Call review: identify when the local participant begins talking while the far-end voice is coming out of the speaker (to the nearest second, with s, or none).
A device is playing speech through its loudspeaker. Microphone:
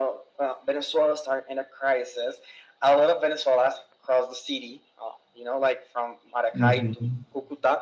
7 s